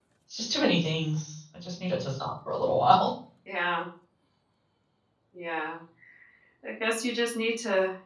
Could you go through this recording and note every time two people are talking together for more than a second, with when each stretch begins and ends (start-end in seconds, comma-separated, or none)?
none